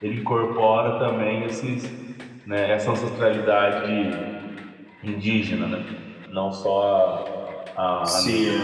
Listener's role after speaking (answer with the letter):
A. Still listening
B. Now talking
B